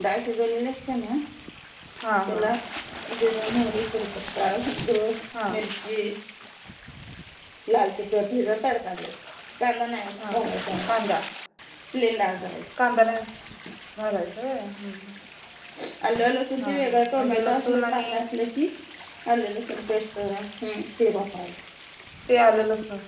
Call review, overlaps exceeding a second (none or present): present